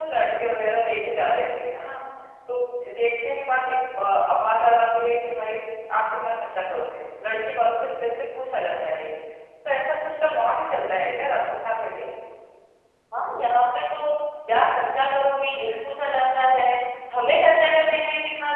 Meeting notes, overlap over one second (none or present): none